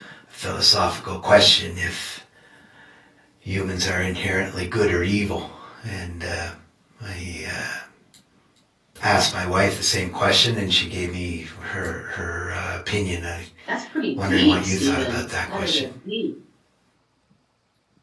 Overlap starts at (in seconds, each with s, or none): 14.2 s